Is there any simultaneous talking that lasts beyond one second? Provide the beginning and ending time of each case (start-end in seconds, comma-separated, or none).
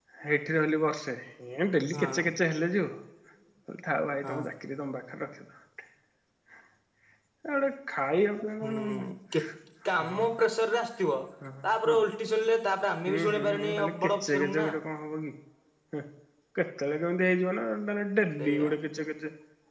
13.1-14.7